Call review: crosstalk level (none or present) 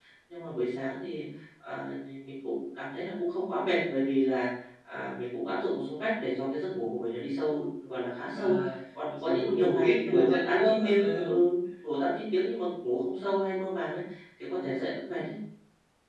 present